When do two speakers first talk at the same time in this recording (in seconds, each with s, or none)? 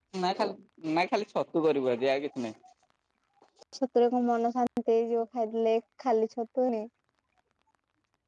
none